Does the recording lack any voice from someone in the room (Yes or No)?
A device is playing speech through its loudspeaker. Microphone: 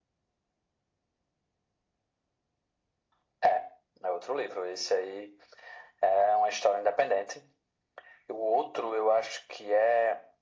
Yes